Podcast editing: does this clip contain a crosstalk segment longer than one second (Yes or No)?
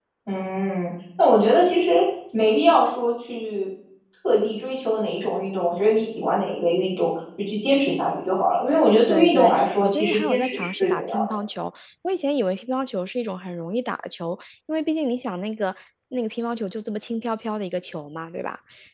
Yes